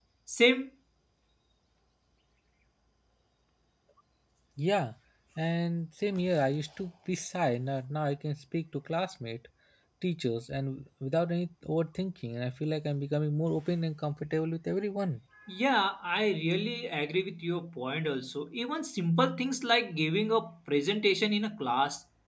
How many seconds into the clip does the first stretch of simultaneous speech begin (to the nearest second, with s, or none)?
none